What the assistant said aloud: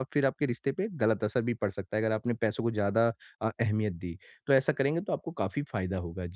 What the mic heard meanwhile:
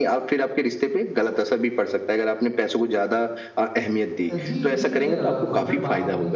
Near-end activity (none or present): present